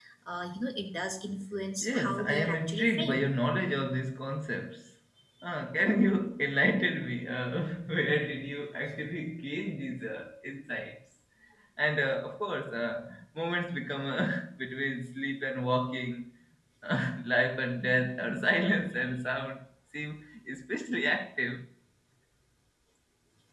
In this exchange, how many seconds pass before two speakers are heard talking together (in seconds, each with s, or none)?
1.8 s